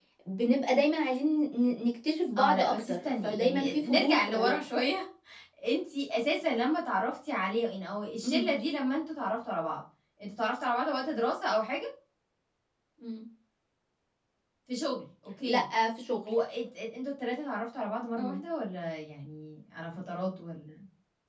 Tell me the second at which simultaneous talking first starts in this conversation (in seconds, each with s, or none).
2.4 s